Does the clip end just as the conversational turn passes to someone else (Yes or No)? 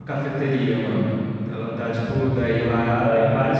No